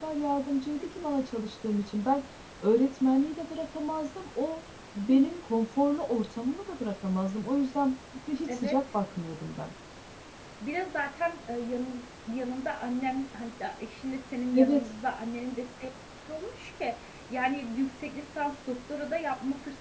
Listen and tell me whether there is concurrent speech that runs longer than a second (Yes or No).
No